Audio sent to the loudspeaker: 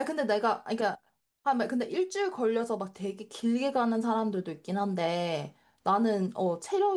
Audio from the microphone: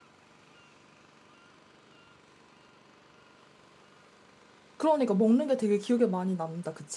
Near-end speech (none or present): present